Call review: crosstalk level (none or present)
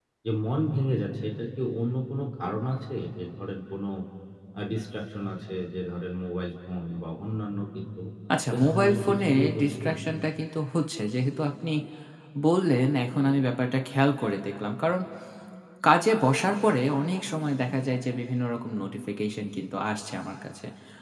present